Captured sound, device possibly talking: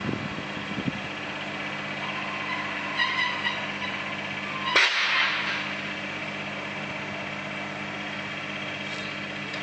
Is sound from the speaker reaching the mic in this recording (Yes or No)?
No